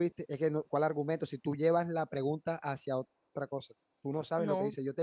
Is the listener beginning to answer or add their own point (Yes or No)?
No